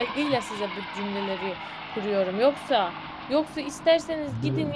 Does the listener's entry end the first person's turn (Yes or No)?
No